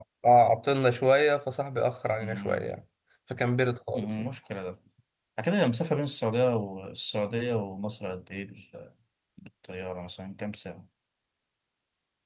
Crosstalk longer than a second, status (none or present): none